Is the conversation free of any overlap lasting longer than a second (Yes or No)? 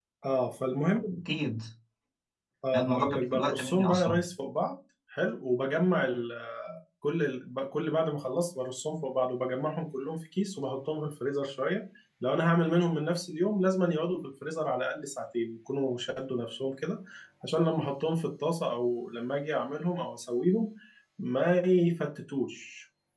No